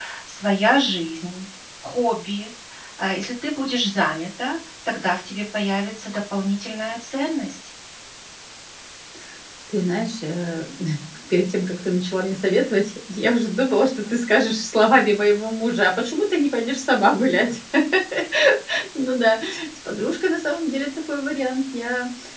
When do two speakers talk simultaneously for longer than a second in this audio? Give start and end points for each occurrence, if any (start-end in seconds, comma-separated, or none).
none